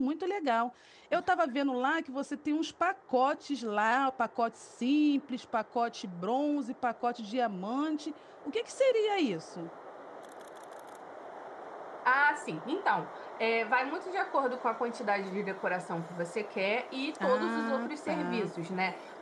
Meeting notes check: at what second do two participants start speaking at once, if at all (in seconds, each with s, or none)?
17.2 s